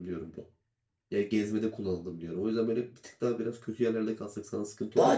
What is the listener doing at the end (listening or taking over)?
taking over